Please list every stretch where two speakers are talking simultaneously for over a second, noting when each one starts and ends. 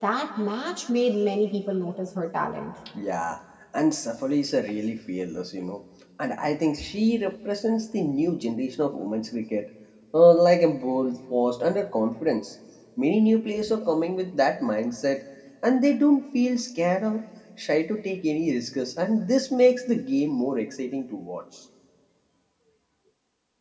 none

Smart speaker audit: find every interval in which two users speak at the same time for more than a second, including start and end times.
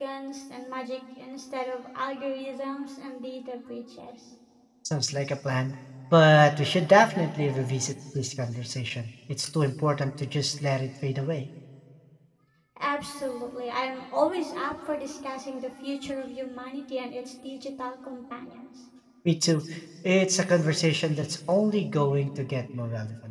none

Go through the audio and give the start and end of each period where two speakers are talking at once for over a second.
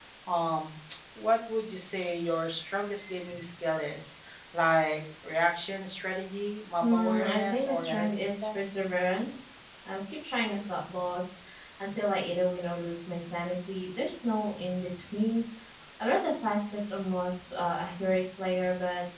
6.8-8.5

